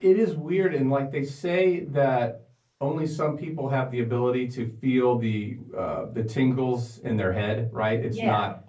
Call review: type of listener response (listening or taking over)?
listening